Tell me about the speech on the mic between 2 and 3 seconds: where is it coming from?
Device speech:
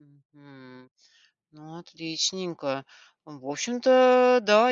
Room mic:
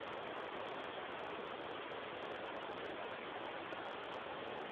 neither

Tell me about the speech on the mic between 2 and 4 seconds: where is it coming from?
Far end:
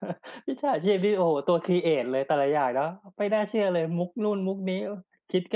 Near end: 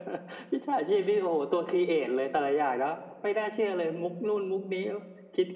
echo only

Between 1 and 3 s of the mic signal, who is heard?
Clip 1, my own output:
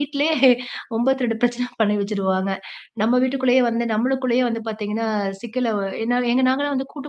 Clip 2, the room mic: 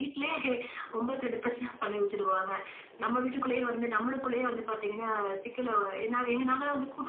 echo only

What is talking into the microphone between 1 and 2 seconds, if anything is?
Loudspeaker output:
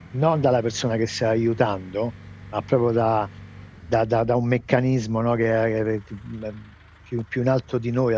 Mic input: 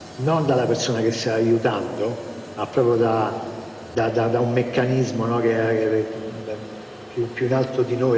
echo only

